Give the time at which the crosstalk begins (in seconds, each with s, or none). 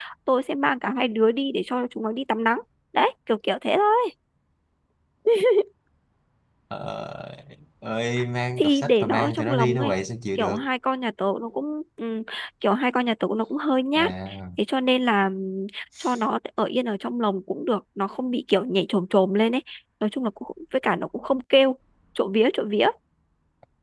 8.6 s